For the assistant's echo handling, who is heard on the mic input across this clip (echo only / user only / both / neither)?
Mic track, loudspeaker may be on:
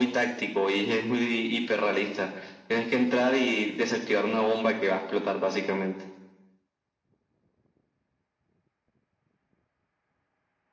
echo only